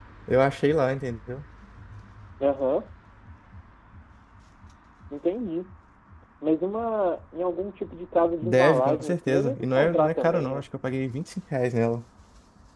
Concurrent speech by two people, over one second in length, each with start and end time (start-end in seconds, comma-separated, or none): 8.4-10.7